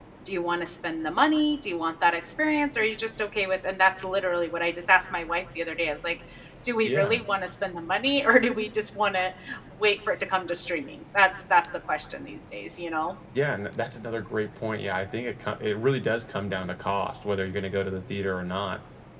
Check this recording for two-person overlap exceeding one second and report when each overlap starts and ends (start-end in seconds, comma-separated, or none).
none